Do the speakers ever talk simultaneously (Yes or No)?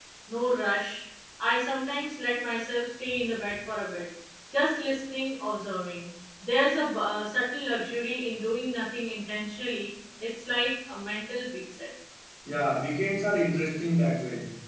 No